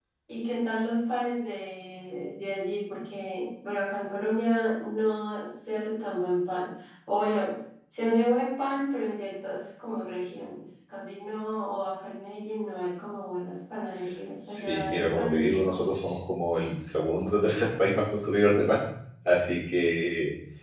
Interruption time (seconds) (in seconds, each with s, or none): 14.4 s